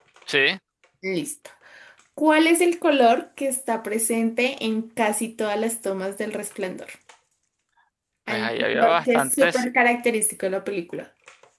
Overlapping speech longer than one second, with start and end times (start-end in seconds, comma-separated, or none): 8.3-9.6